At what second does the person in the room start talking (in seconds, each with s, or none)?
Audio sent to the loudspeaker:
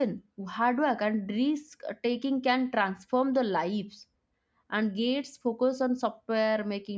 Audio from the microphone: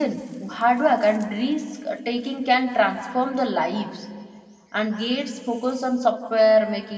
none